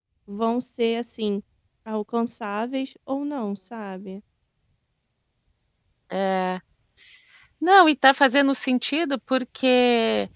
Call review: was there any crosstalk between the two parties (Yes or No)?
No